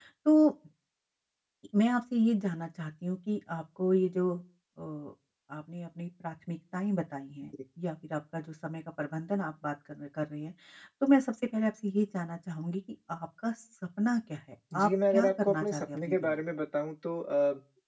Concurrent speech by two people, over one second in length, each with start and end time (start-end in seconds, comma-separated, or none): 14.8-16.3